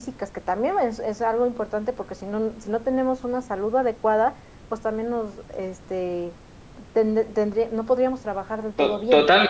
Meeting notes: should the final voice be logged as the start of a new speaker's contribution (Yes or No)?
Yes